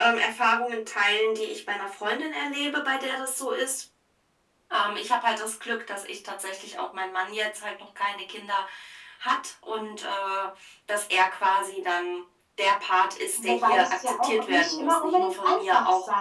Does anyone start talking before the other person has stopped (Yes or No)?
Yes